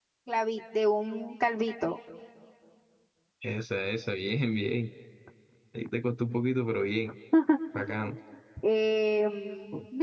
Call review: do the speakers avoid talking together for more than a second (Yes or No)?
Yes